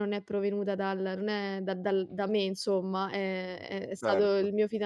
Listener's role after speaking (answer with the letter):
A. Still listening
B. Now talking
A